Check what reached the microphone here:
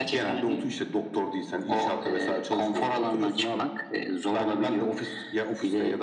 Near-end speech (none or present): none